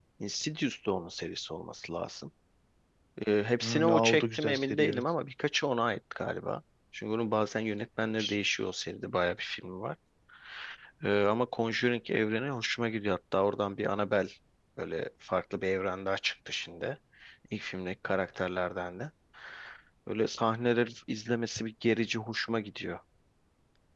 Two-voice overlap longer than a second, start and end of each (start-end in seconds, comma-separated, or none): 3.6-5.0